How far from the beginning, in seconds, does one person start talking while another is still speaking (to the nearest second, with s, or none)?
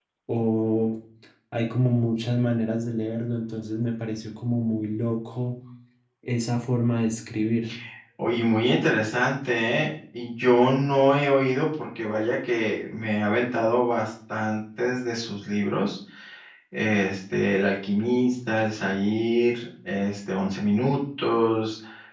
none